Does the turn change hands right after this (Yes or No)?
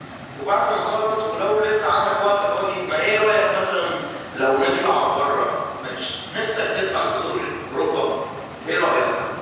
Yes